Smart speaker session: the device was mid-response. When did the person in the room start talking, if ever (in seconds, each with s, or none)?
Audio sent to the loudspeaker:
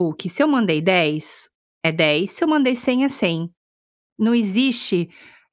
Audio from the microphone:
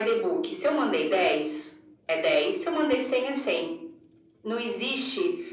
none